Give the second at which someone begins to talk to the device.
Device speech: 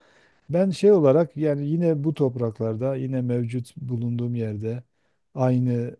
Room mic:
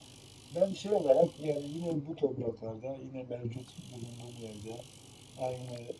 none

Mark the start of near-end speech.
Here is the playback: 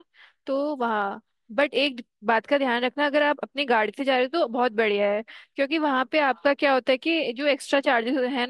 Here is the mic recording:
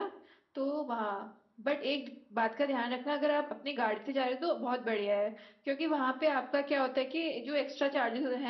none

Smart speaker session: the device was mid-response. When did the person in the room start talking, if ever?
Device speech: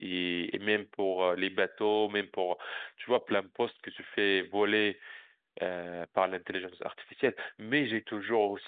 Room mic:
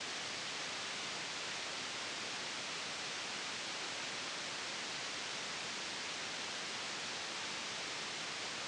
none

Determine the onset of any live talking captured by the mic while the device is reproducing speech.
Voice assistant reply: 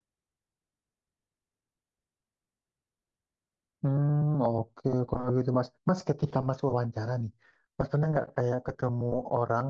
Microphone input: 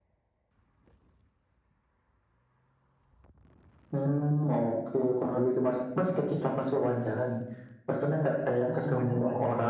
8.7 s

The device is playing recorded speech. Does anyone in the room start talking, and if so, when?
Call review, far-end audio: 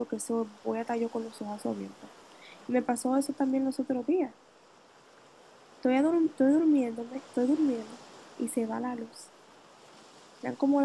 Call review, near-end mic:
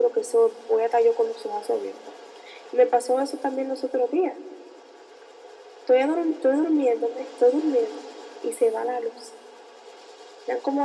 none

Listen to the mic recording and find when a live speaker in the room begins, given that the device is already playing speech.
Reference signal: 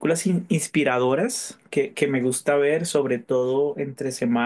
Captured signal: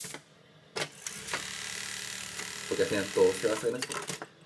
2.7 s

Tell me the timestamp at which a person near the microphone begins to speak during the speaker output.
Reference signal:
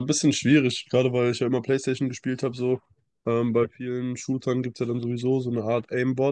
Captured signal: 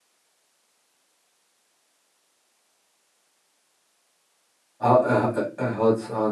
4.8 s

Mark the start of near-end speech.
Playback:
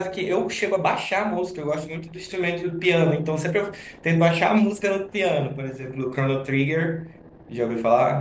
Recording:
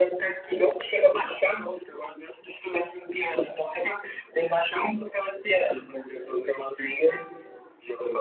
none

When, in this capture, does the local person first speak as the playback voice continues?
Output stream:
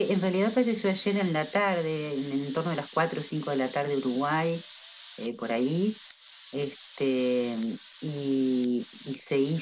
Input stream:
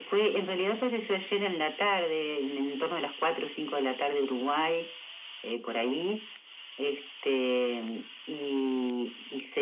none

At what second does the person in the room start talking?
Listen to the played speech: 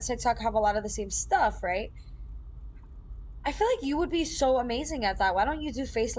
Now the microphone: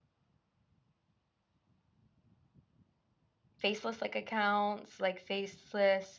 3.6 s

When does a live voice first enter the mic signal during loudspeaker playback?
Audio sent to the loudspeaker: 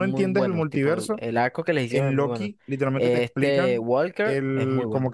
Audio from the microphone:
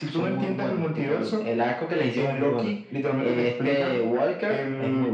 none

